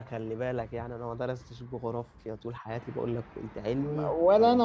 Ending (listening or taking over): taking over